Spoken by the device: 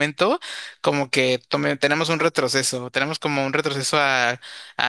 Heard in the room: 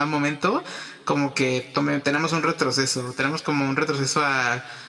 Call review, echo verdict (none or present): present